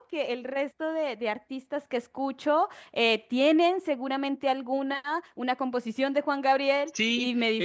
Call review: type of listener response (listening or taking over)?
taking over